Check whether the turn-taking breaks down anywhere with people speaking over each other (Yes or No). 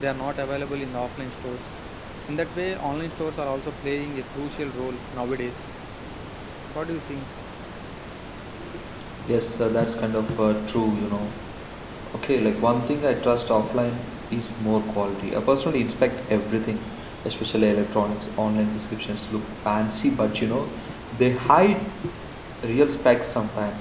No